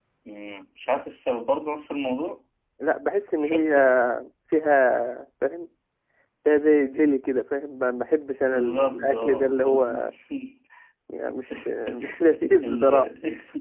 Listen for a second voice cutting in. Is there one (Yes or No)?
Yes